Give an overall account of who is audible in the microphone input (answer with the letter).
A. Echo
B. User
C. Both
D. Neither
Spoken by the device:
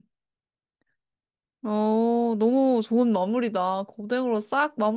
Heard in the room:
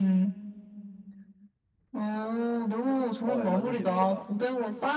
C